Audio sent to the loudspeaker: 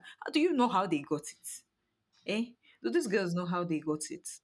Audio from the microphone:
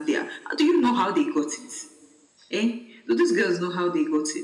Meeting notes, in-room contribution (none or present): none